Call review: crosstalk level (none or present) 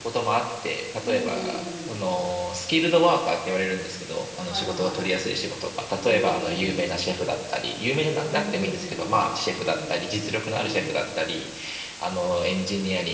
present